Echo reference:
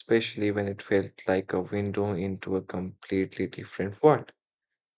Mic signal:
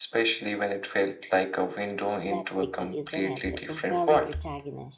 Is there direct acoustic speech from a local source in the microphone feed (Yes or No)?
Yes